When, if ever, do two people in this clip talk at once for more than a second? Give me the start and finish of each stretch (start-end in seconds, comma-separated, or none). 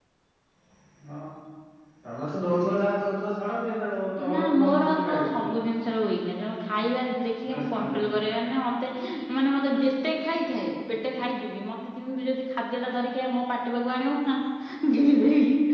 4.3-5.5